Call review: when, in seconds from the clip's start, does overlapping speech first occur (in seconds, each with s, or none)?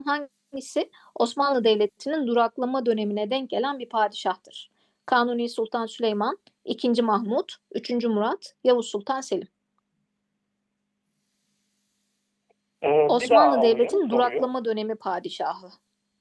13.1 s